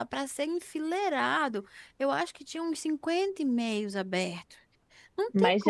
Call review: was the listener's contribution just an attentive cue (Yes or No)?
No